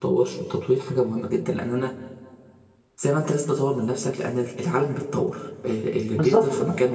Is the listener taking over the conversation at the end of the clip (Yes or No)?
Yes